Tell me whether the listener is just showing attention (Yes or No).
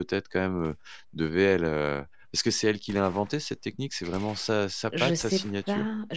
No